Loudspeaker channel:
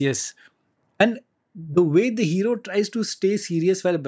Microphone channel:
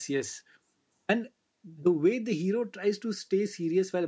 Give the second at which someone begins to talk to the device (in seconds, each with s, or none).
none